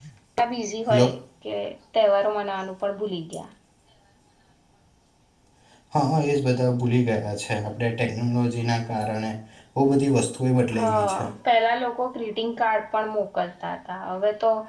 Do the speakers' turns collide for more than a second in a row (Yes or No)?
No